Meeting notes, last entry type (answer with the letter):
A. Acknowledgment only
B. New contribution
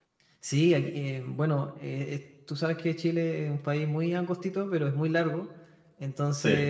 A